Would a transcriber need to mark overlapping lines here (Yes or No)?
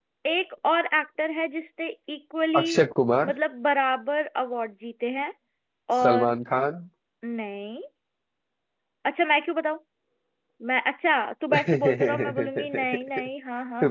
Yes